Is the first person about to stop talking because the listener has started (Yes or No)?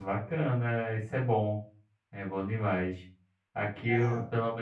No